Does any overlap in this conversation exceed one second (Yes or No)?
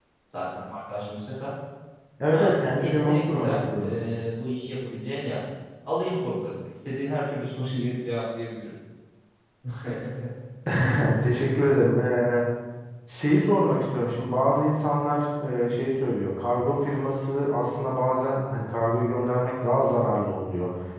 Yes